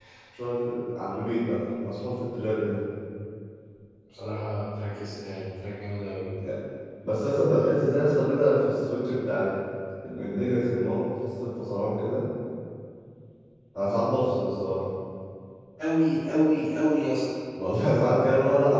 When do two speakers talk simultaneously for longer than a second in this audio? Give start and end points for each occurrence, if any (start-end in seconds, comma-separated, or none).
none